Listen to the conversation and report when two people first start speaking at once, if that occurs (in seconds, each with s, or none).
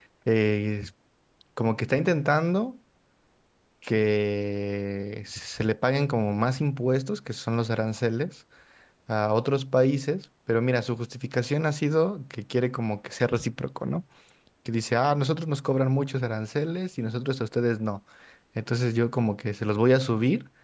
none